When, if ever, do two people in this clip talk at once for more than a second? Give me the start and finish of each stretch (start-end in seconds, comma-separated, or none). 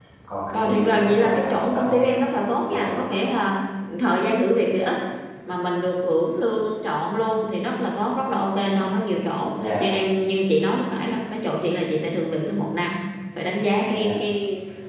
0.5-2.2